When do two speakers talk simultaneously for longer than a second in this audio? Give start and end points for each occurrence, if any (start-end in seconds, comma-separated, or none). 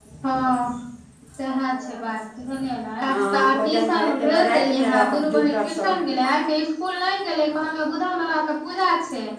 3.1-6.0